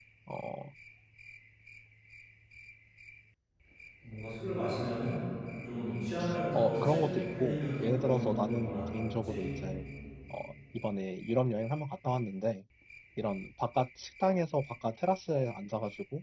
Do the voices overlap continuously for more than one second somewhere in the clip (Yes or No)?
Yes